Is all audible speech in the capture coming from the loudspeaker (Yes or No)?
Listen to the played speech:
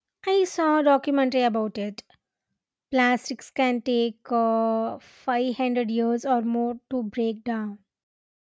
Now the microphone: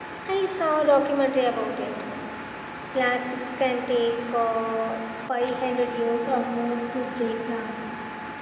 Yes